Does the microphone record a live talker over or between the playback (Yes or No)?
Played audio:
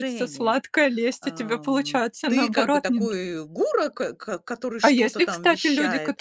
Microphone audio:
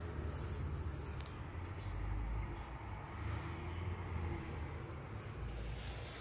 No